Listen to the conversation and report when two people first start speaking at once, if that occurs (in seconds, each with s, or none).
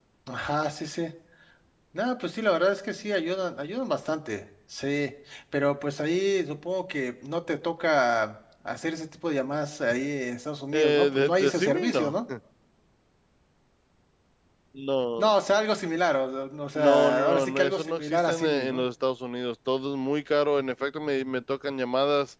10.7 s